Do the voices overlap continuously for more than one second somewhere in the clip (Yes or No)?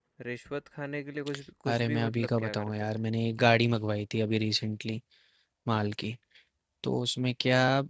Yes